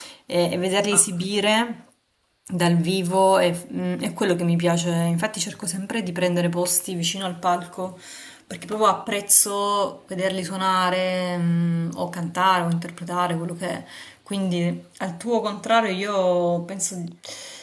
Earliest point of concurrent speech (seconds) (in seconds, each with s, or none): none